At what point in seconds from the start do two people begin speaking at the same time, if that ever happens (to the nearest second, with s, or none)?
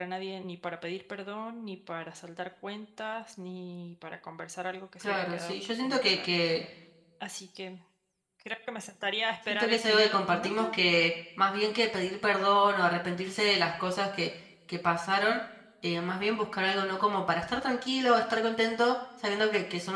5 s